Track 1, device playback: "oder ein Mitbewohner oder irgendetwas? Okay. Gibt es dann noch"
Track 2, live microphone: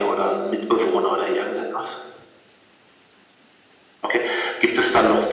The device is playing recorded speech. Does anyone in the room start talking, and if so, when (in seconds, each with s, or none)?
none